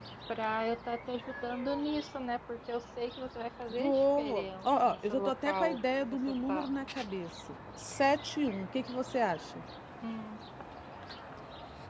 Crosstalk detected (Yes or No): Yes